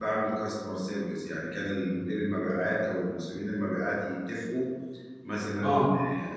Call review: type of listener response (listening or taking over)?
listening